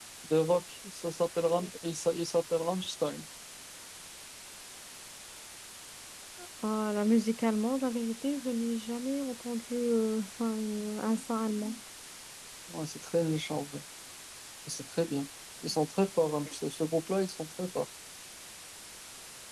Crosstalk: none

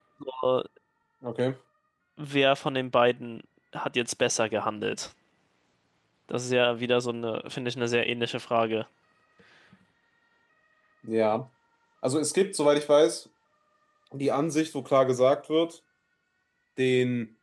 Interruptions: none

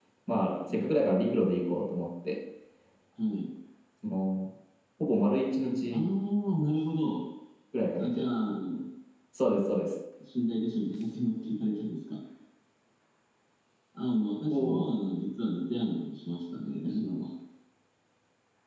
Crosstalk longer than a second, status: none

